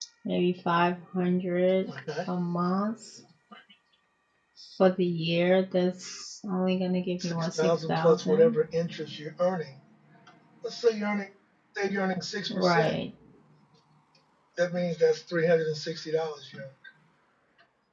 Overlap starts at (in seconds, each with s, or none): 7.2 s